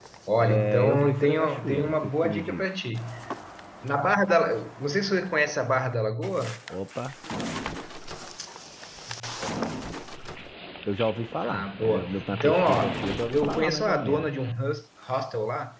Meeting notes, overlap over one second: present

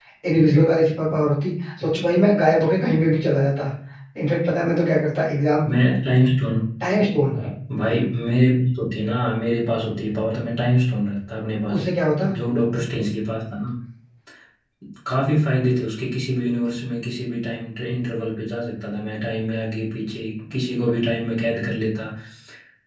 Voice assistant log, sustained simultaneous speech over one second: none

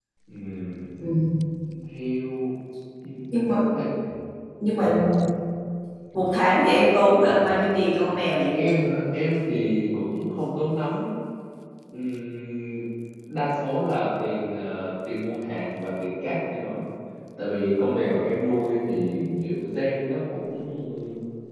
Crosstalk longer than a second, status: none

